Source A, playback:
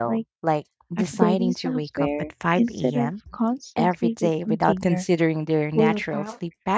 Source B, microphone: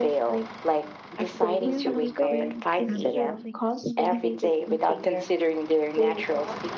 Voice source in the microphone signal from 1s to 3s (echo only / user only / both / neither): both